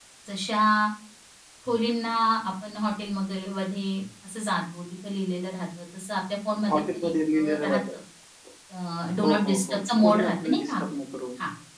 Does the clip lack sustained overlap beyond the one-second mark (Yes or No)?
No